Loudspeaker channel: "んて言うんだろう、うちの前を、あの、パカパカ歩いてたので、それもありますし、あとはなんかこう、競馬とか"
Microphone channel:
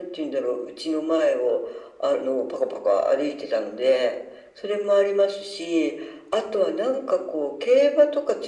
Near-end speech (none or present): none